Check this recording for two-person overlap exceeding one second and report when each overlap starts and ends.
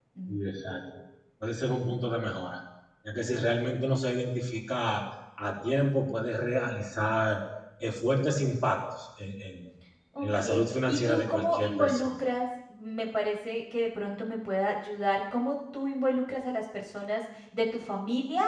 10.9-12.1

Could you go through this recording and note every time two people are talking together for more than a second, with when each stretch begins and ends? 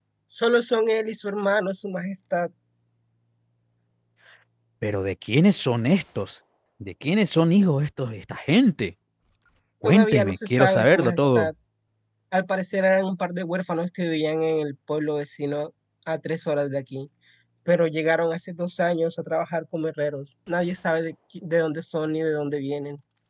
9.8-11.5

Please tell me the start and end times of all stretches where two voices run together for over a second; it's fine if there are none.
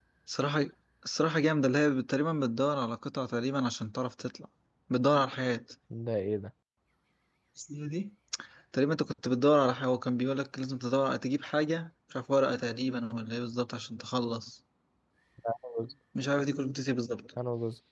none

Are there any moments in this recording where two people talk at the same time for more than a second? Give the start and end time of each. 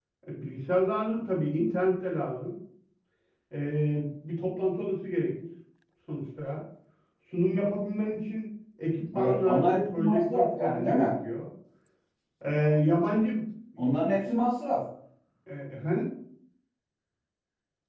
9.1-11.1

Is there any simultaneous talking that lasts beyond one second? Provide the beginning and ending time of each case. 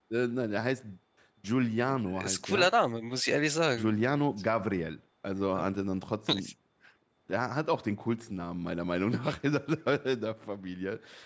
none

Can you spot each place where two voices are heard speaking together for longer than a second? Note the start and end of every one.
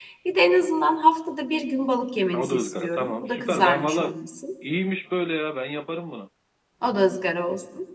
2.3-4.1

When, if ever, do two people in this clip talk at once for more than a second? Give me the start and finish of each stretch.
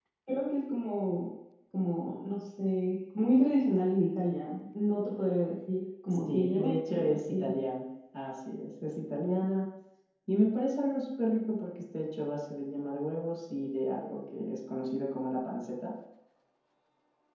6.1-7.5

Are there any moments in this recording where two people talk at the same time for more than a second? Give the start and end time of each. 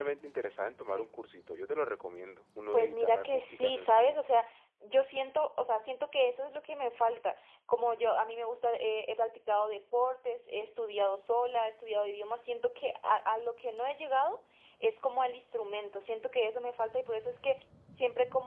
2.7-4.2

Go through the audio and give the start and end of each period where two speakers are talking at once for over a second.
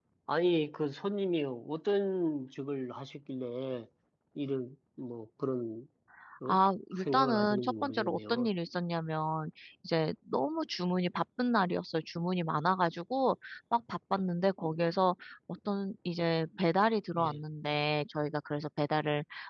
7.0-8.5

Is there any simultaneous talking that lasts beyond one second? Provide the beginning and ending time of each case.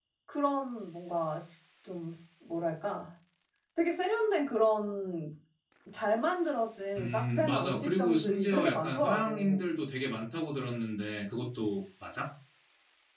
7.0-9.6

